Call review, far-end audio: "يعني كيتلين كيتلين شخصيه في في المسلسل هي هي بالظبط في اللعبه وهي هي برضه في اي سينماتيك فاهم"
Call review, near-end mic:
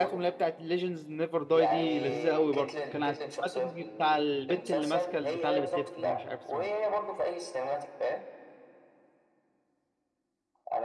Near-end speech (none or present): present